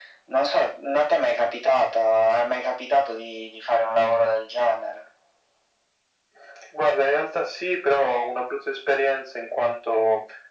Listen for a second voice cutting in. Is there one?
No

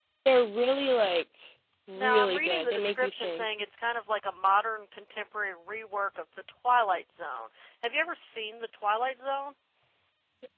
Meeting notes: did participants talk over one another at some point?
Yes, from 1.9 s

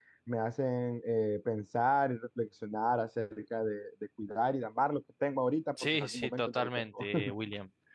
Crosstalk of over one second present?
Yes, from 5.8 s

